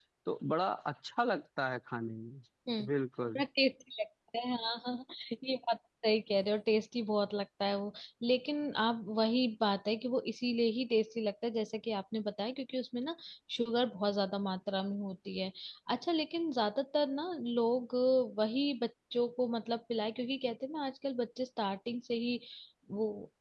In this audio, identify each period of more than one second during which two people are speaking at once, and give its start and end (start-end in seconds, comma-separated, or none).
none